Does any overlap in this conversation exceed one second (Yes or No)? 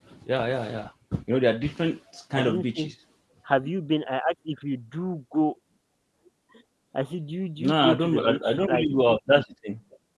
Yes